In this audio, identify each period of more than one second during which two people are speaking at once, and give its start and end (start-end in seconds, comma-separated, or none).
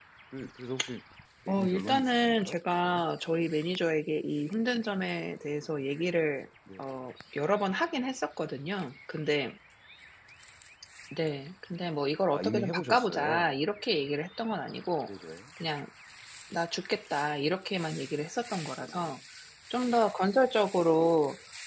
1.5-3.0, 12.3-13.5